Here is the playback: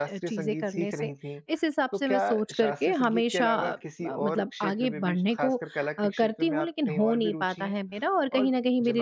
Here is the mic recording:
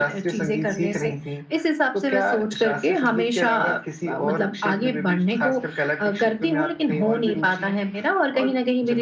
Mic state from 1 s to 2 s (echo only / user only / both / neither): echo only